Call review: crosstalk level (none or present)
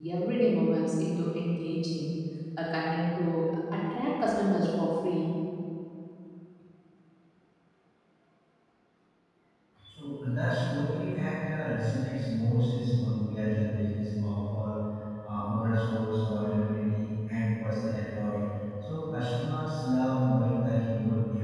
none